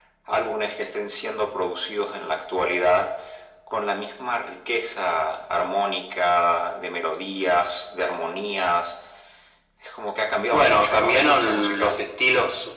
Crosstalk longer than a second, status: present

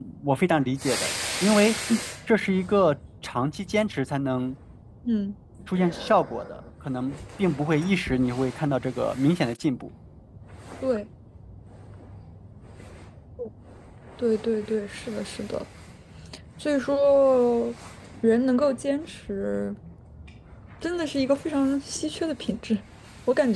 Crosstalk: none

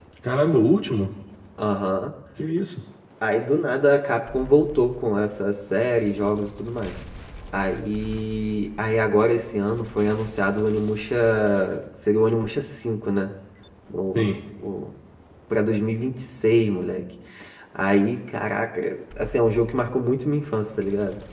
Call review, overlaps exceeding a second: none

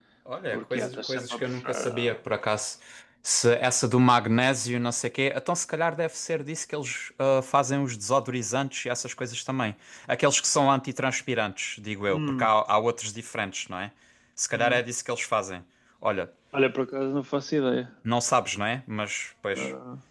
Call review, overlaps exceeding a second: present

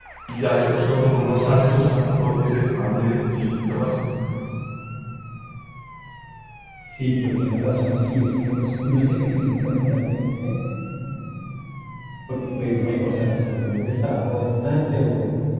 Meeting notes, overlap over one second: none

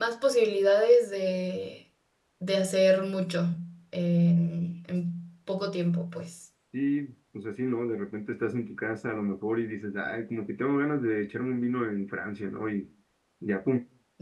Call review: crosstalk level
none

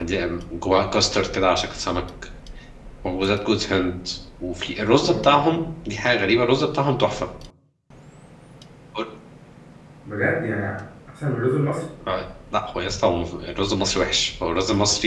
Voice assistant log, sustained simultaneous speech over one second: none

